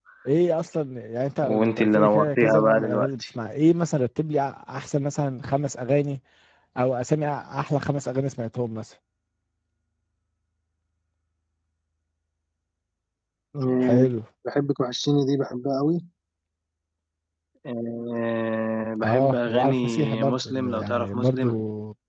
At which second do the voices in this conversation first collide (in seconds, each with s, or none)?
1.4 s